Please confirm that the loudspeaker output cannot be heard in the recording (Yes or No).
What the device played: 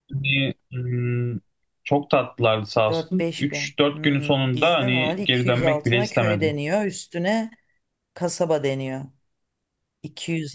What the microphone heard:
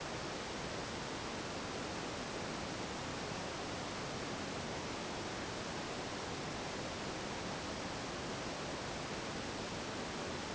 Yes